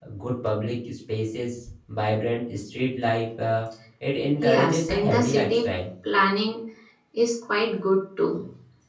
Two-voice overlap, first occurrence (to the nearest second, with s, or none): 4 s